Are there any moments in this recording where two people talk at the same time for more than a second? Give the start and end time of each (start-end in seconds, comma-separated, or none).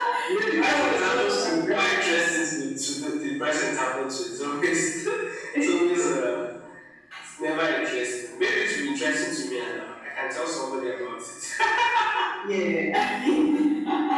0.5-2.1